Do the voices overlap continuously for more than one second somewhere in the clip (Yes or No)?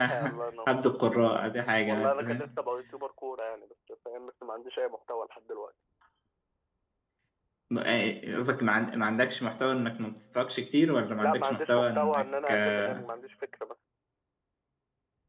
Yes